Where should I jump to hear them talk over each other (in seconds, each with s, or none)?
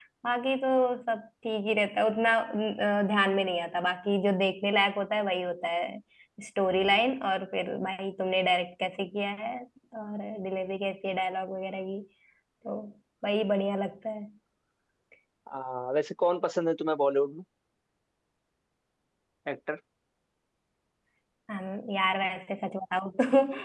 none